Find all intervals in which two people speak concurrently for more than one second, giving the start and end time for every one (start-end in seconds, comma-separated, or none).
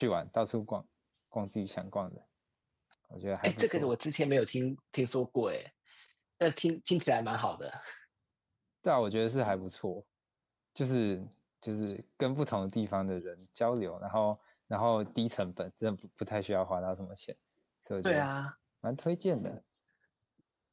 none